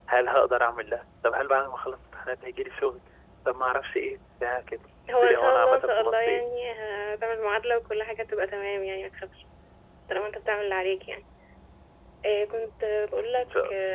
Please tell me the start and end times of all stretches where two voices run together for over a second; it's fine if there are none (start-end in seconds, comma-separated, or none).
5.2-6.4